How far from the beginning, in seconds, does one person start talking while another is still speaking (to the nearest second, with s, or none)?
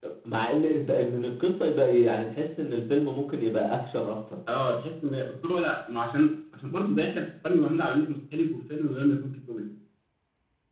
none